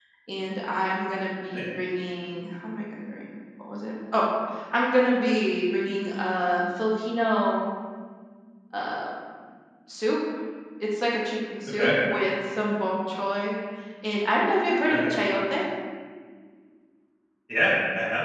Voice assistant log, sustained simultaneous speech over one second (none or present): none